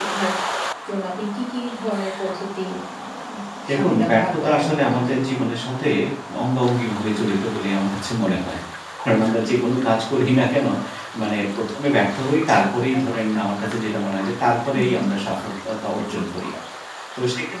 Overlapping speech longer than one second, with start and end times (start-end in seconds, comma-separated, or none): 3.7-5.4